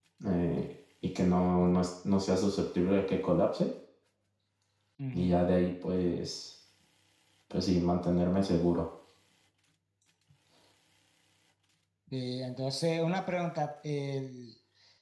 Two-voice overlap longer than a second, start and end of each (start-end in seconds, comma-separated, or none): none